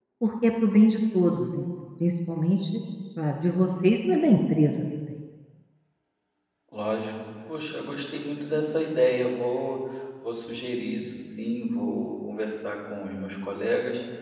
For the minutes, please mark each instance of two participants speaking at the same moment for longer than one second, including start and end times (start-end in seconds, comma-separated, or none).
none